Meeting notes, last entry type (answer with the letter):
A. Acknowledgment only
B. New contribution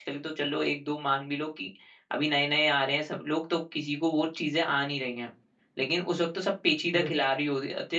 A